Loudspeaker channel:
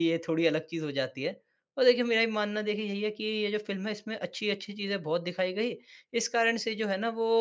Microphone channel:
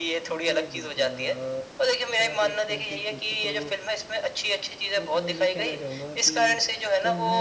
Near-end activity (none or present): present